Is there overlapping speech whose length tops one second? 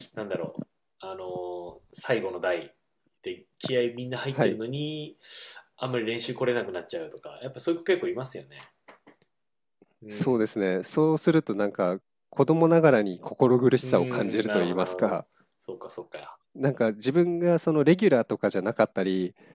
Yes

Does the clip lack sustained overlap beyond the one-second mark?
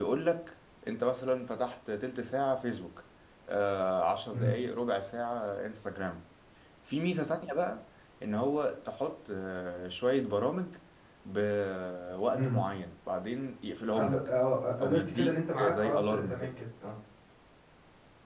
No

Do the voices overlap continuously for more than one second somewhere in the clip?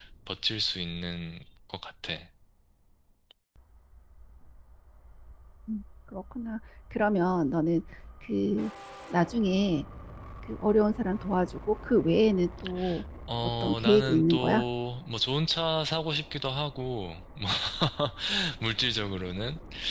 Yes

